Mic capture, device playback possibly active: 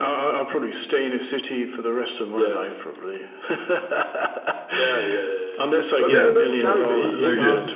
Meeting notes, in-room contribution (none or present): present